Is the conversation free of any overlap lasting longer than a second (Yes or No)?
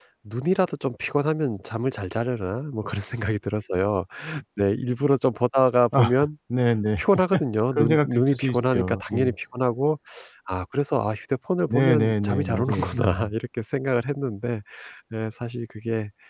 No